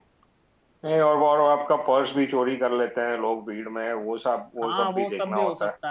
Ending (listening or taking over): taking over